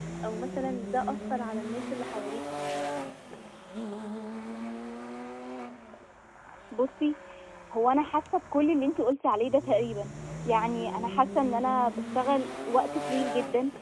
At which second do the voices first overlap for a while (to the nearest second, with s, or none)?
none